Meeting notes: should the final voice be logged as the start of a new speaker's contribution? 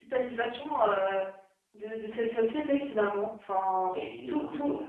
Yes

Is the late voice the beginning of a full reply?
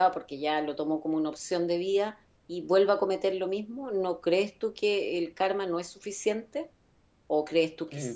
Yes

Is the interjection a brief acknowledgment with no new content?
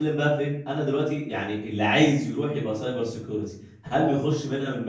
Yes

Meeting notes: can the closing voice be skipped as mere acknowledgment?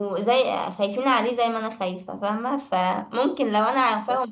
Yes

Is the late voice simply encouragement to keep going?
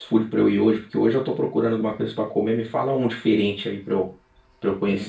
No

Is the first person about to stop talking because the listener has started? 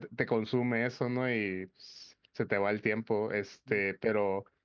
No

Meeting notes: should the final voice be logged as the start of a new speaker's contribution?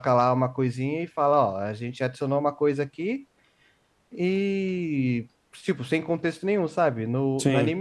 No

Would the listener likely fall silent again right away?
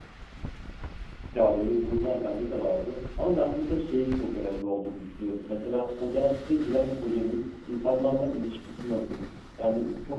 Yes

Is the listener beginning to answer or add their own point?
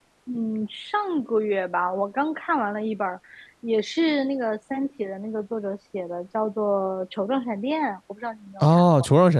Yes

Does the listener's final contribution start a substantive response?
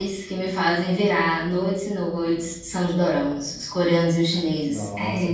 Yes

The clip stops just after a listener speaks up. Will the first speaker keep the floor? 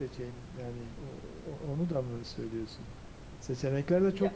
Yes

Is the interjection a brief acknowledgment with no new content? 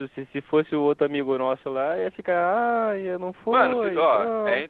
No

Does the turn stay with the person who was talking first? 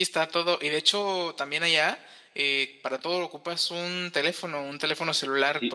No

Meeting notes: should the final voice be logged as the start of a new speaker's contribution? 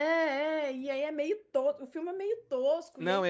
Yes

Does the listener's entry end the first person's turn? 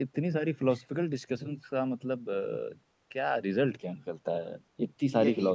Yes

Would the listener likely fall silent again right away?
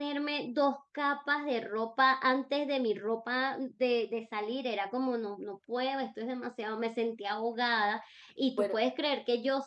Yes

